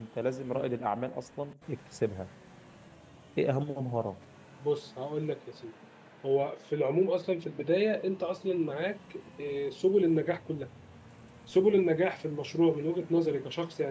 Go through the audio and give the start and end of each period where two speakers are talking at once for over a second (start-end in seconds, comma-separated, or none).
none